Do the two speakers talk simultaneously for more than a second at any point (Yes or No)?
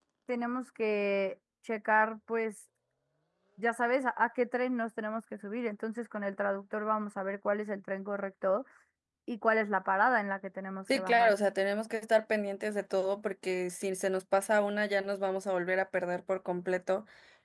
No